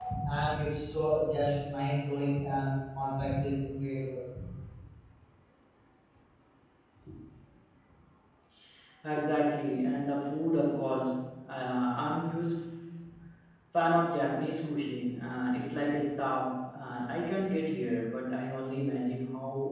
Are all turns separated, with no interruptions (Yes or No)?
Yes